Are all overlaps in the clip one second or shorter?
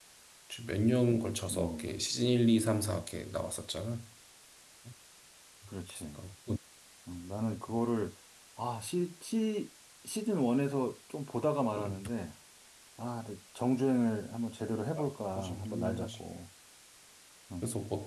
No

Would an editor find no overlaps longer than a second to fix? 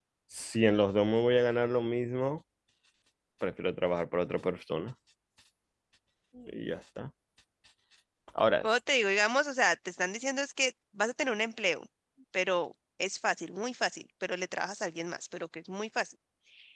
Yes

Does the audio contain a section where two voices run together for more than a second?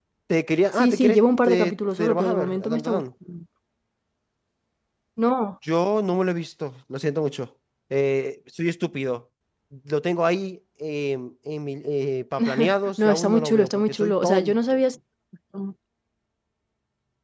Yes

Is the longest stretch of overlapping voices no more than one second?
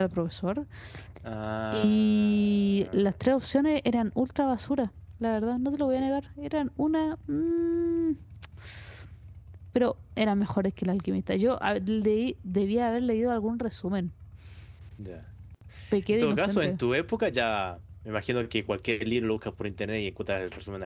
No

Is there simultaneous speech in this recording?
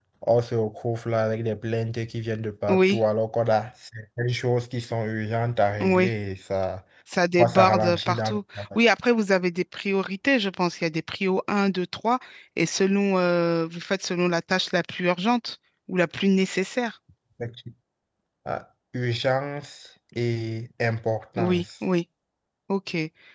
Yes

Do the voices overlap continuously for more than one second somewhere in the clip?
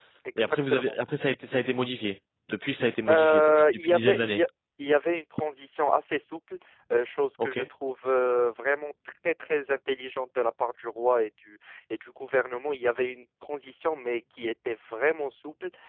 Yes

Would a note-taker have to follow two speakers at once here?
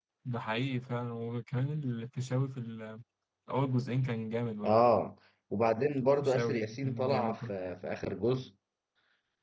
Yes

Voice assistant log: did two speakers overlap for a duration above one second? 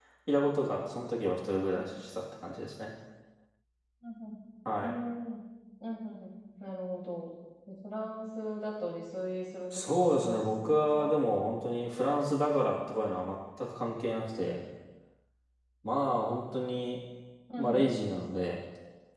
Yes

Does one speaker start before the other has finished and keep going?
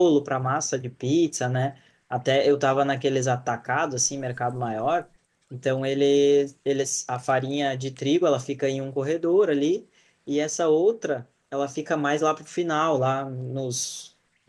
No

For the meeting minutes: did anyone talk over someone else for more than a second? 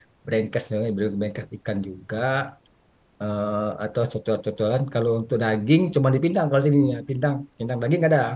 No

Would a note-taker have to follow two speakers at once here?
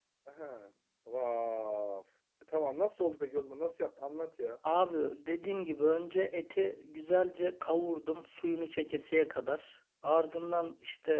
No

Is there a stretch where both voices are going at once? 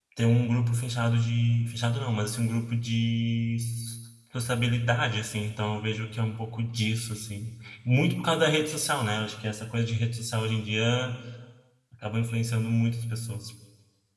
No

